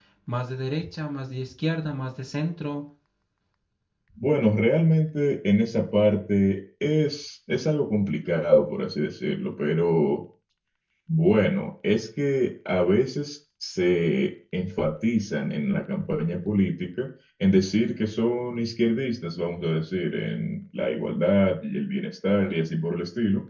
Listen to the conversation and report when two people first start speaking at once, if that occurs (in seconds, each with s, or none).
none